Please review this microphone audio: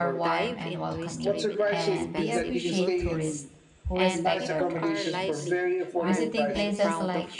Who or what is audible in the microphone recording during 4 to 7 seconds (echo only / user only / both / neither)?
both